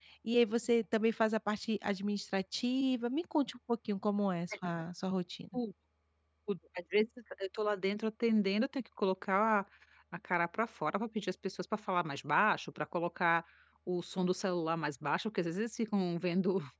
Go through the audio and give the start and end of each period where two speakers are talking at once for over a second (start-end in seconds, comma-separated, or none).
none